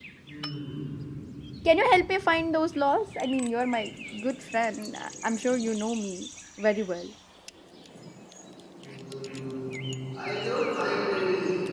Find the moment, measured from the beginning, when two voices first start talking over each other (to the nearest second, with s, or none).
none